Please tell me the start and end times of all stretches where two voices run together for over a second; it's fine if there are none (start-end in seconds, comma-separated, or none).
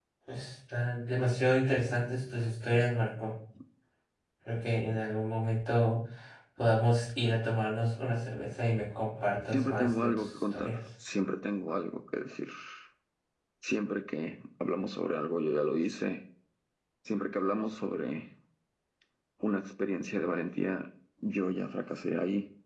9.5-10.8